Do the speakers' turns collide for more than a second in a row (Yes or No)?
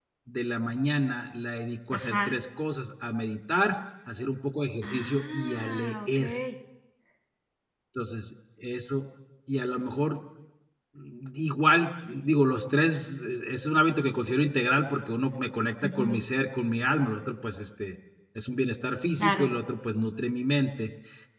Yes